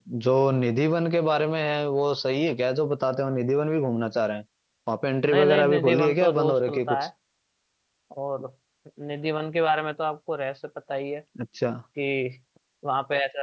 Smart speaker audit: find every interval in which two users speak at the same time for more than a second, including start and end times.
5.3-7.1

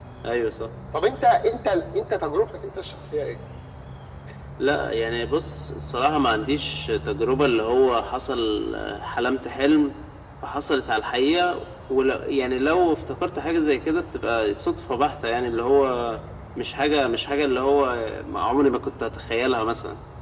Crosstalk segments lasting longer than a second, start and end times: none

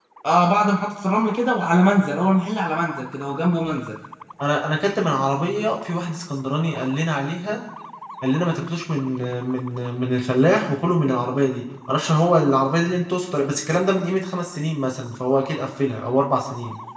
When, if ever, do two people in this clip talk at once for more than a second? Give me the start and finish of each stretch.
none

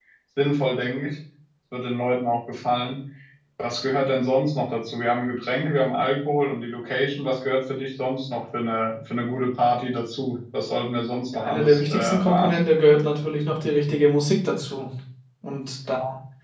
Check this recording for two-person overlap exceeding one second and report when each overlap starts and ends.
11.3-12.6

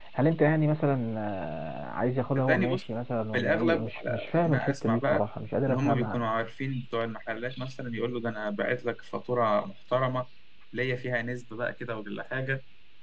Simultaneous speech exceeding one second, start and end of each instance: 3.3-5.2

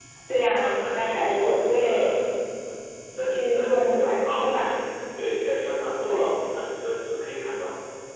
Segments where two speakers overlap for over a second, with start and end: 0.6-2.1, 3.2-4.8

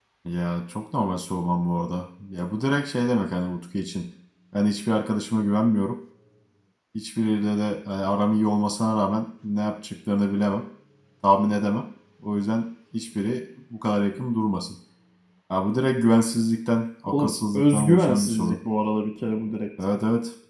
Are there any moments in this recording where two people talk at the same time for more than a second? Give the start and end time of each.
17.1-18.6

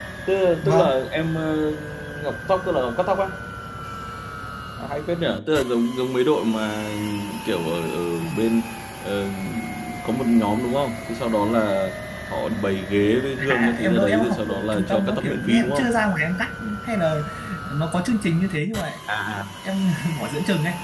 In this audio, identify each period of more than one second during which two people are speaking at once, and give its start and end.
13.5-15.9

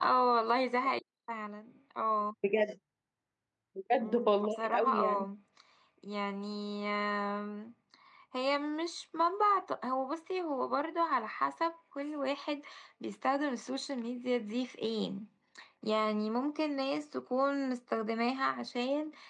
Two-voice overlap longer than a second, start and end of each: 4.0-5.2

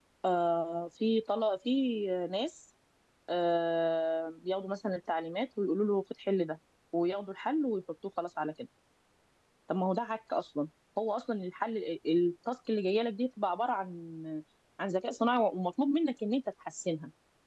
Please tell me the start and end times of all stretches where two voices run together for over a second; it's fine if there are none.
none

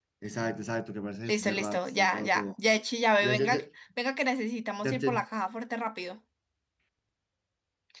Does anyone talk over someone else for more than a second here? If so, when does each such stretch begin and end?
1.3-2.5

